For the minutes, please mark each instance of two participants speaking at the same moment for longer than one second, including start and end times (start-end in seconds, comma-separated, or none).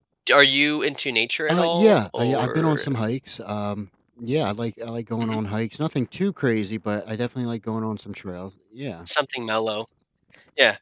1.5-2.8